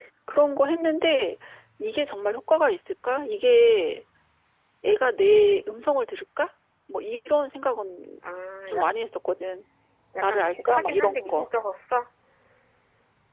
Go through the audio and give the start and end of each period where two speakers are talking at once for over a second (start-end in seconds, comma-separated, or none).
10.2-11.4